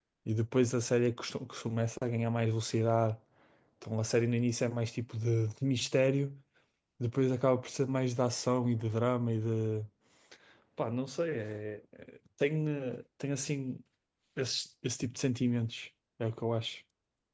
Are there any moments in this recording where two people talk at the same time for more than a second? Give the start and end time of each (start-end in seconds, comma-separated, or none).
none